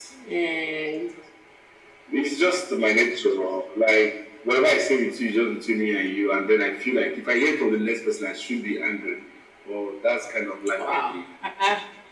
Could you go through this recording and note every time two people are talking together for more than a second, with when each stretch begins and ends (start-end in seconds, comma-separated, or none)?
none